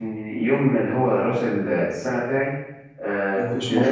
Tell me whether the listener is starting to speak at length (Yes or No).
No